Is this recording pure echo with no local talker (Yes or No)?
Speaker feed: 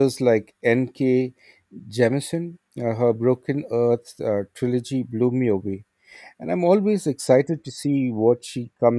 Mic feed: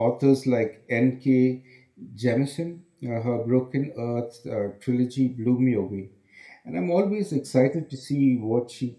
Yes